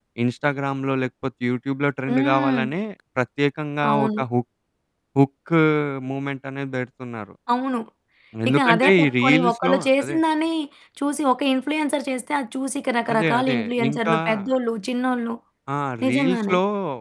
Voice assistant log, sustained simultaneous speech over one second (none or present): present